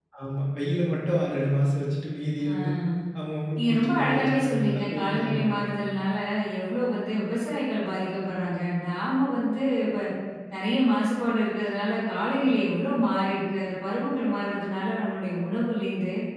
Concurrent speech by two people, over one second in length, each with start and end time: 3.6-5.6

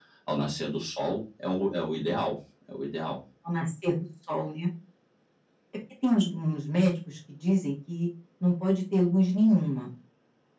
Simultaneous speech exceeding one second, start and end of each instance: none

